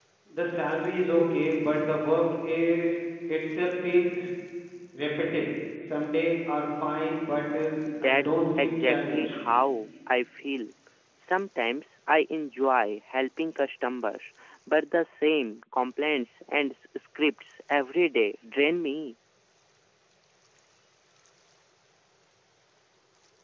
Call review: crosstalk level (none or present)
present